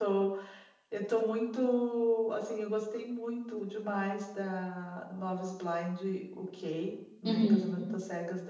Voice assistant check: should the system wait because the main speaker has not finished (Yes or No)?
Yes